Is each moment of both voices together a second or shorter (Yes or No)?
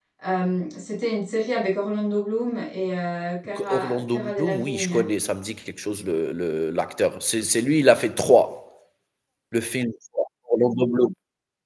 No